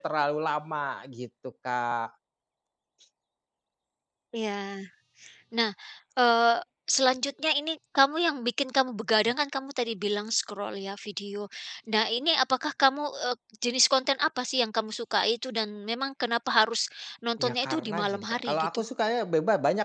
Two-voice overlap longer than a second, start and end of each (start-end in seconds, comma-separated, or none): 17.4-18.8